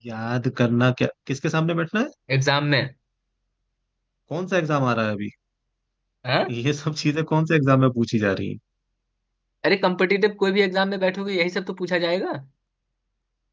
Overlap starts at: none

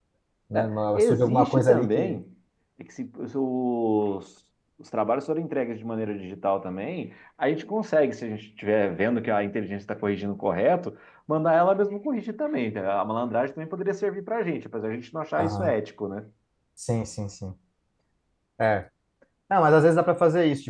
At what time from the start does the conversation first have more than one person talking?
0.5 s

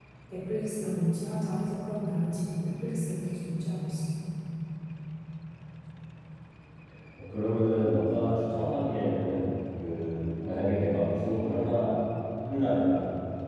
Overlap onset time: none

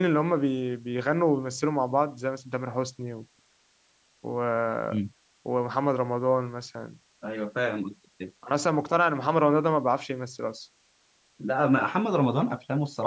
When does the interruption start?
none

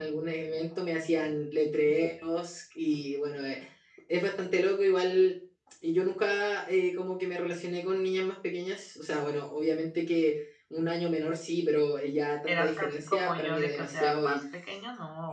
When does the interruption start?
12.5 s

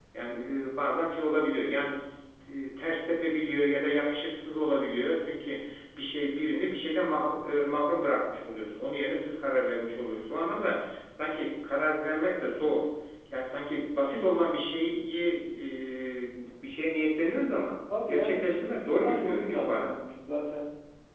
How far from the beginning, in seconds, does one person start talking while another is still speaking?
17.9 s

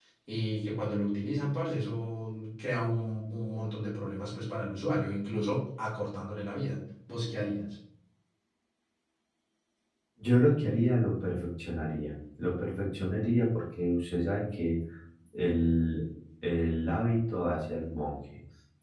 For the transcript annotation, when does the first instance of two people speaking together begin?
none

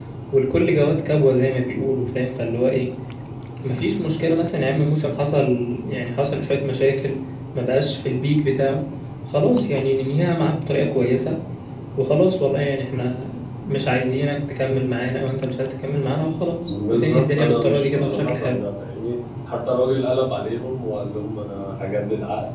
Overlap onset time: 16.7 s

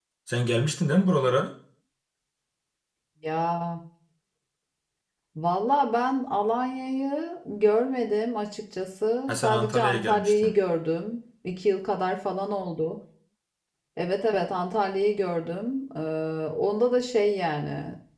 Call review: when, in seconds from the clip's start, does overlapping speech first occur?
9.3 s

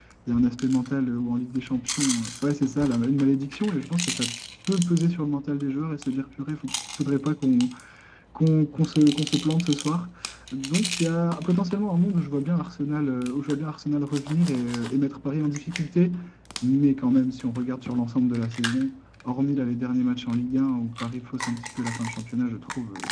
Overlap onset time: none

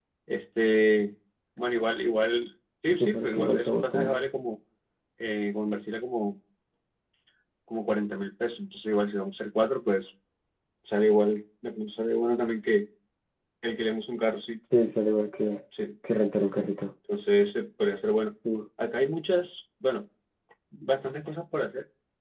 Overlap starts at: 3.0 s

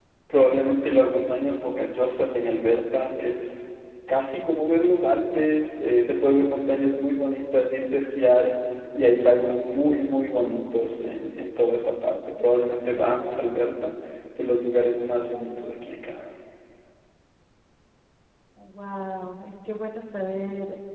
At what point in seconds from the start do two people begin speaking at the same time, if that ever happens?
none

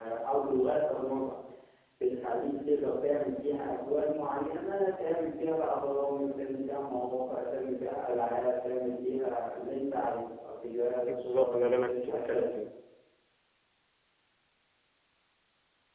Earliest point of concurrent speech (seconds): 11.1 s

